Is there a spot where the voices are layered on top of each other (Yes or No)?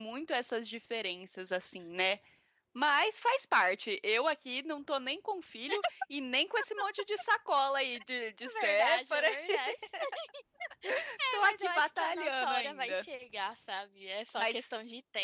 Yes